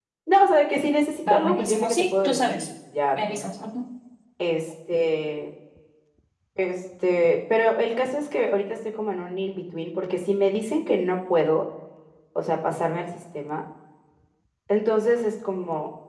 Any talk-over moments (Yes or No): Yes